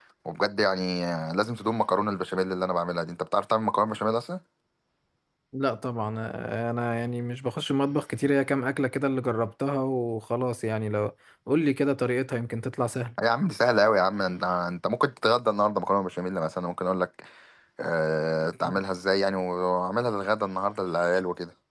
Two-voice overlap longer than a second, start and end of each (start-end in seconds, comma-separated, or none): none